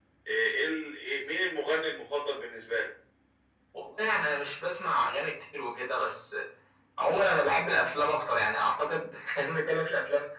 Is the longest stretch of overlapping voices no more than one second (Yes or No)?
Yes